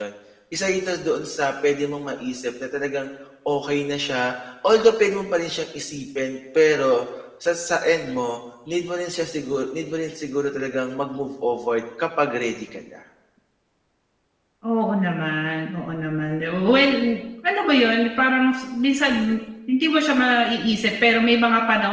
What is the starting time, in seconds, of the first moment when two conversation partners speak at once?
none

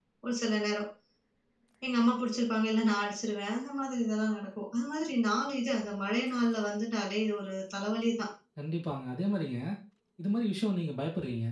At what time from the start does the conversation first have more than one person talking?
none

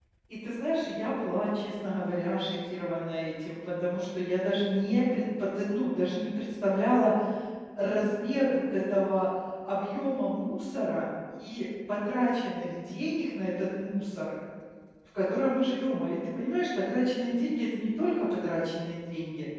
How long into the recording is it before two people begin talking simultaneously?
none

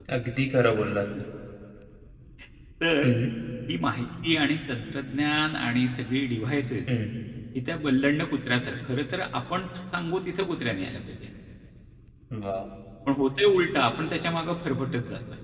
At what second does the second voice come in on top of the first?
none

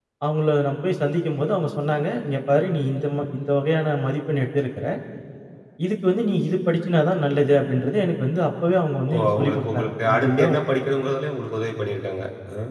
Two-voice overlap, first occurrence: 9.1 s

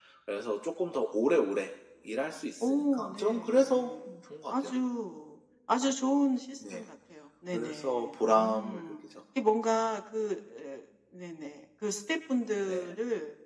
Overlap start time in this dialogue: 2.6 s

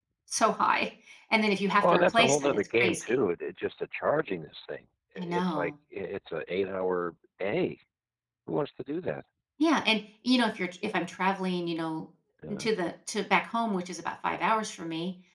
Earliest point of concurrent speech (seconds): 1.8 s

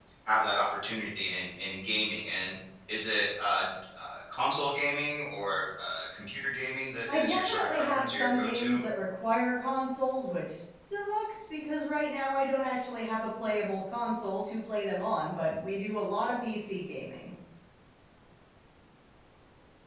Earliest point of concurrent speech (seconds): 7.1 s

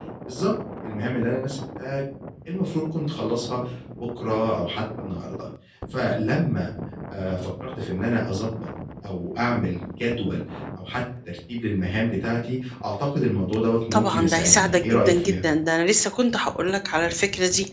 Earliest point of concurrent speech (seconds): 13.9 s

